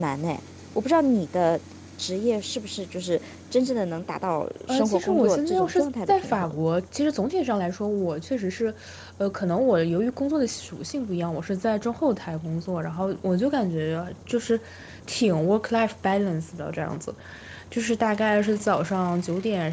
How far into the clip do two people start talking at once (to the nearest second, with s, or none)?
5 s